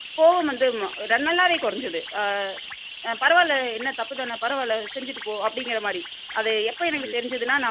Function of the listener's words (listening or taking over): listening